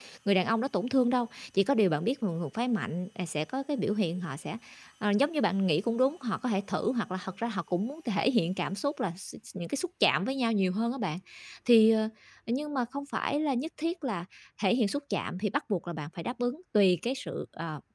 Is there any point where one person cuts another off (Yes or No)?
No